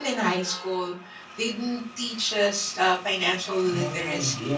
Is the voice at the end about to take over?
Yes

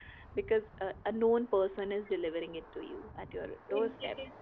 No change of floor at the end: No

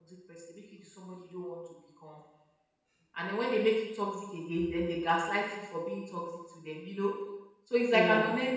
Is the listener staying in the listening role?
Yes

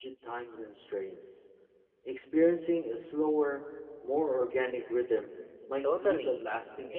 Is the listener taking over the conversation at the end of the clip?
Yes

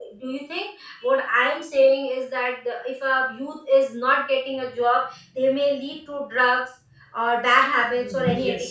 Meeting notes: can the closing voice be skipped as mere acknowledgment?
No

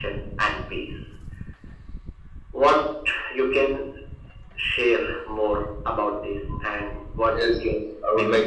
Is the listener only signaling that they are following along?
No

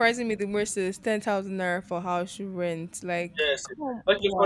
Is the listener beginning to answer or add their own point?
Yes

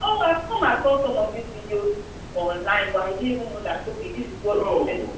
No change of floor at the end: No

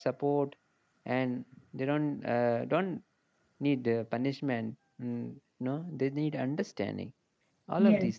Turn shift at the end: Yes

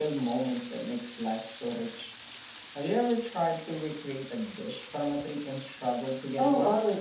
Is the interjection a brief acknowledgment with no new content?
No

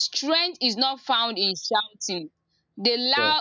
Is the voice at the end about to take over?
No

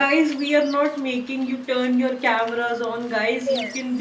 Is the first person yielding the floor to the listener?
No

